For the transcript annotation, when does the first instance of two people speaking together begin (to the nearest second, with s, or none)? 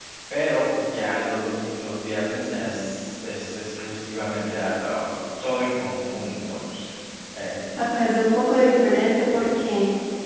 none